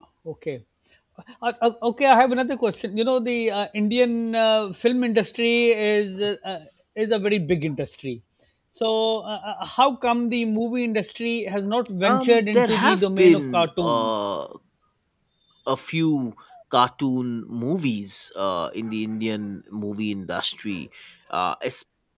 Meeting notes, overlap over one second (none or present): present